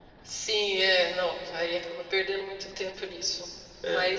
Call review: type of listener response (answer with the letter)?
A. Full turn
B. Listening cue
B